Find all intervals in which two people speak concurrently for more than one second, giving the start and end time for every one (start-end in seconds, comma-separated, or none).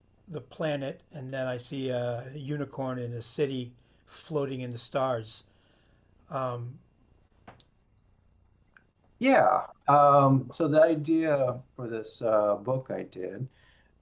none